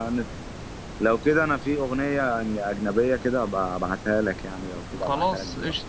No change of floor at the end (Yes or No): No